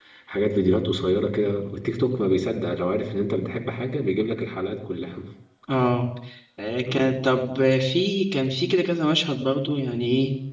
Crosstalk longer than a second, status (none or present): none